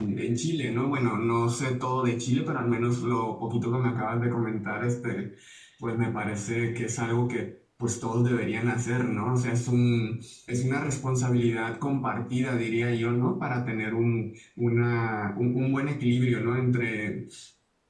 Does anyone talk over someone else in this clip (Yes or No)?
No